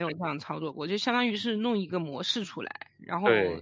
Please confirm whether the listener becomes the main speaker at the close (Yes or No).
No